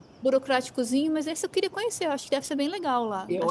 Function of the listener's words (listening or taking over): taking over